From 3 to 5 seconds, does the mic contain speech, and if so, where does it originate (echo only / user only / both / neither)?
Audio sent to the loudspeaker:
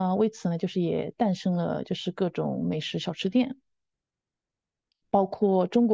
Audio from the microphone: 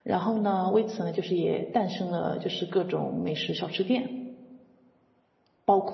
echo only